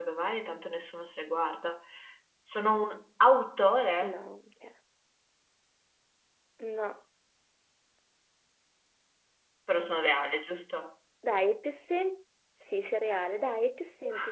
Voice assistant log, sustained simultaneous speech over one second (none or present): none